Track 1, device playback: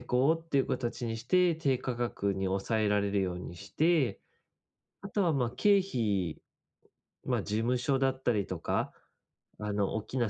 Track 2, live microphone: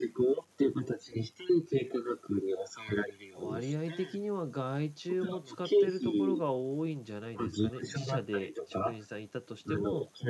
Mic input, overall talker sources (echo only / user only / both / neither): both